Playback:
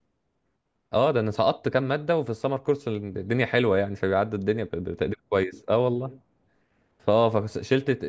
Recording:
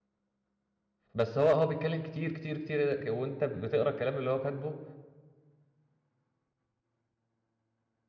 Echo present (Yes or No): No